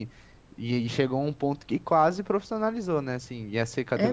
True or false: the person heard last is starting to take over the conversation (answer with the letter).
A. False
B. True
A